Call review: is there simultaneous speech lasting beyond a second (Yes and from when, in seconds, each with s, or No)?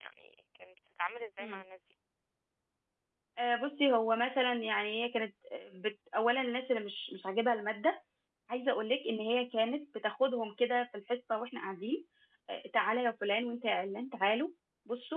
No